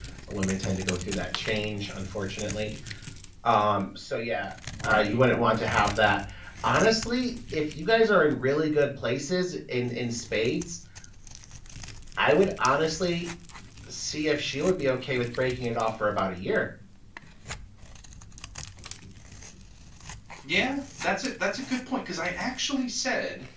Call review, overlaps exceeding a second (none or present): none